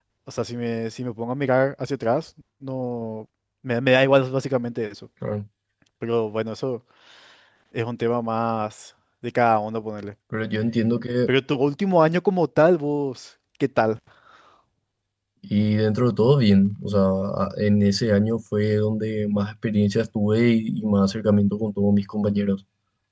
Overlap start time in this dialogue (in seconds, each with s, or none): none